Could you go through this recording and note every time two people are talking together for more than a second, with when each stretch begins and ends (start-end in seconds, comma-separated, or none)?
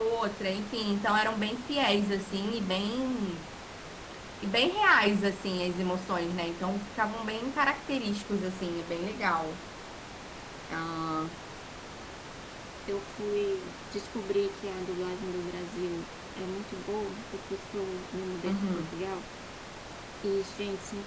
none